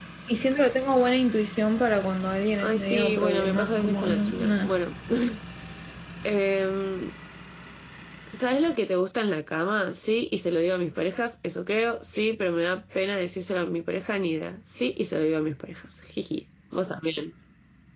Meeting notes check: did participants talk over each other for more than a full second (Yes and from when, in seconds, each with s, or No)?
Yes, from 2.6 s